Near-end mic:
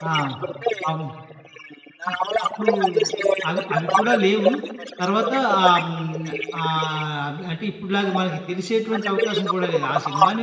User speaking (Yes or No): Yes